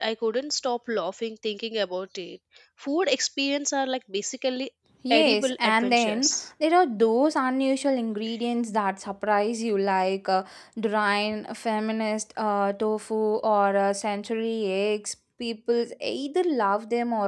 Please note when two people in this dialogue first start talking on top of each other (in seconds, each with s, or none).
5.1 s